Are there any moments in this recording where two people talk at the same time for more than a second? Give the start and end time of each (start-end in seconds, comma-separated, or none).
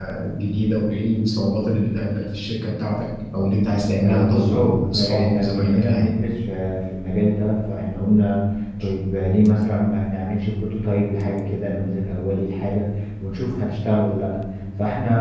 4.0-6.1